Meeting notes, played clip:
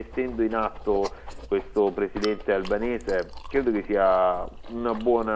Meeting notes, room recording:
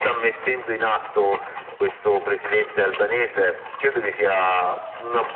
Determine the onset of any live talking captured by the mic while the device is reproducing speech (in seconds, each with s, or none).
none